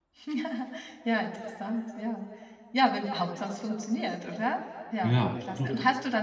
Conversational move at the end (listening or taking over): listening